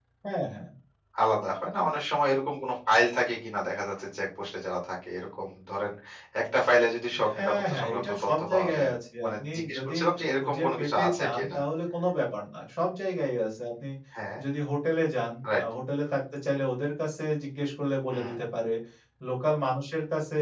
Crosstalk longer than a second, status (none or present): present